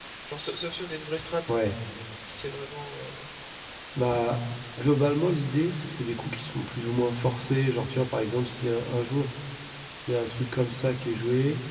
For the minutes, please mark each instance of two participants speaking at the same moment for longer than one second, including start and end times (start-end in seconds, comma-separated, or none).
none